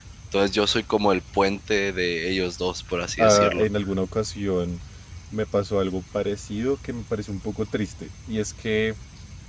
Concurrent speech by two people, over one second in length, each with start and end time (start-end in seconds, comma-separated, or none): none